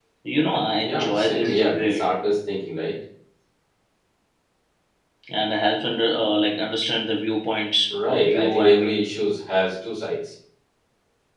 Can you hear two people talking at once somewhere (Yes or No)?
Yes